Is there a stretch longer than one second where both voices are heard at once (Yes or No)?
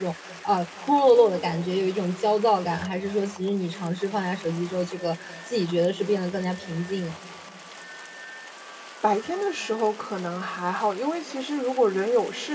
No